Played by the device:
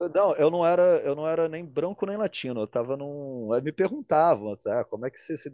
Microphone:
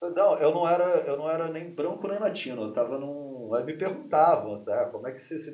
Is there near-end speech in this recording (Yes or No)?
No